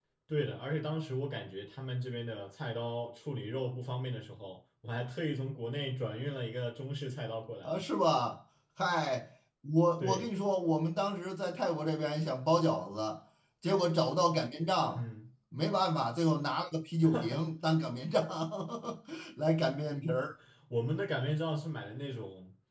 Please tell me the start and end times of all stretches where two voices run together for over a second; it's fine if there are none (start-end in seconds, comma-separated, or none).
none